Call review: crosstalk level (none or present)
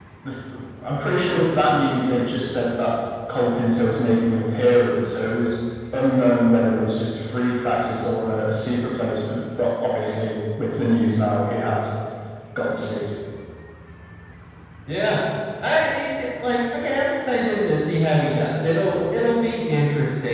none